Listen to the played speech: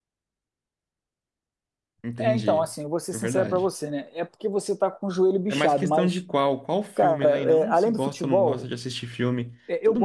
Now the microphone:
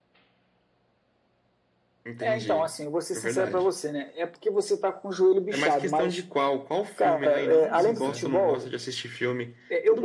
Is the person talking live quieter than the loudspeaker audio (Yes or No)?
Yes